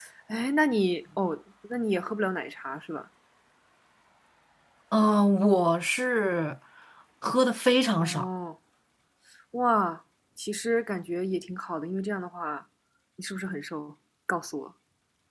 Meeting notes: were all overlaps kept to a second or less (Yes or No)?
Yes